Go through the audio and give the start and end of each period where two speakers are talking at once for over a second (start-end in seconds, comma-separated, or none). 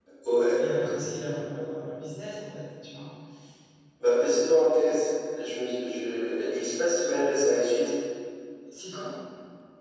none